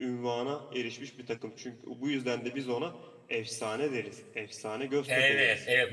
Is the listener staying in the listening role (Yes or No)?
No